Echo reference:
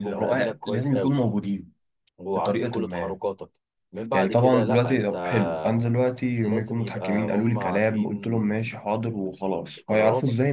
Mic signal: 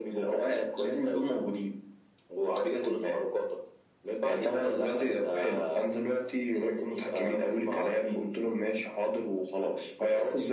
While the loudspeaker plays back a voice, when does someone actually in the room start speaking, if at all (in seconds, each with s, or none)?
none